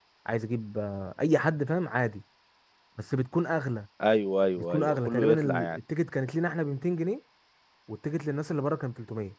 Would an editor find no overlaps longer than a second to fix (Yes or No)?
No